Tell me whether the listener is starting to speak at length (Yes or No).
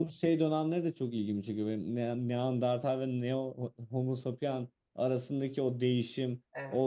No